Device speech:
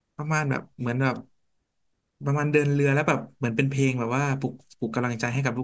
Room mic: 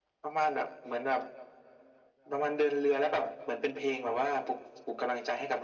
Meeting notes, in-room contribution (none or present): none